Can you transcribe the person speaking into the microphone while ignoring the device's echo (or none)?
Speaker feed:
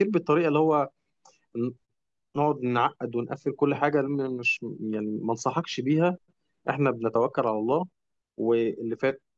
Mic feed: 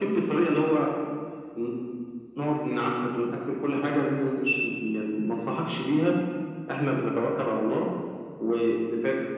none